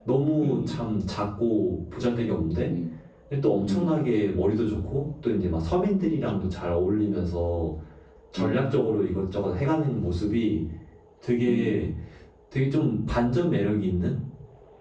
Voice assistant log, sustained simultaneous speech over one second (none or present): none